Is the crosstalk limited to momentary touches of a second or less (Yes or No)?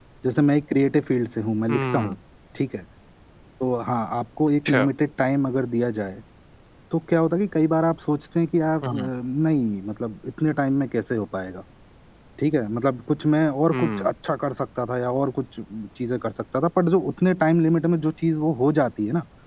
Yes